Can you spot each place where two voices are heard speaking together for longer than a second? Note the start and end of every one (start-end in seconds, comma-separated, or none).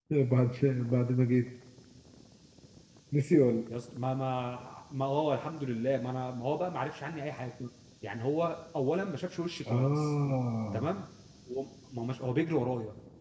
none